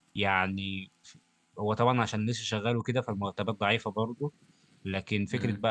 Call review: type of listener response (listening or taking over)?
listening